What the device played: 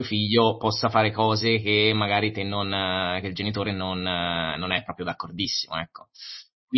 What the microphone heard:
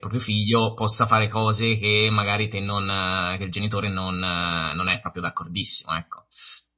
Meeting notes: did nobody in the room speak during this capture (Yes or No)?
Yes